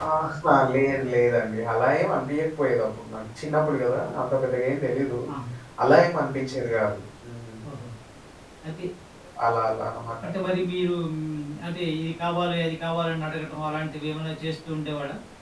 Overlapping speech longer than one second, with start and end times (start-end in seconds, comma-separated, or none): none